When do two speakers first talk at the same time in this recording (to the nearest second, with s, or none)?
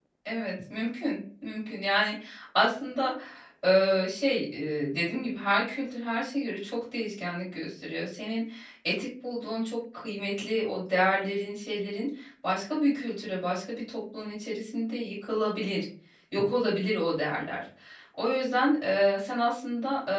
none